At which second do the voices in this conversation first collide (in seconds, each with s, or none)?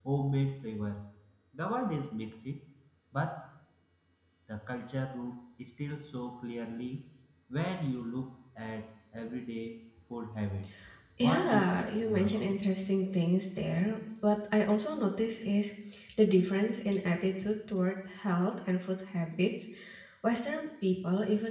11.2 s